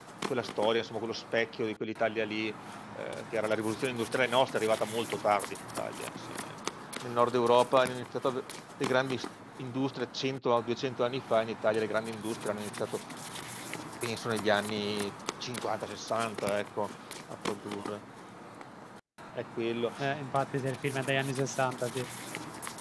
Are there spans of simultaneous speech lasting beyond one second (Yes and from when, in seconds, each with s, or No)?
No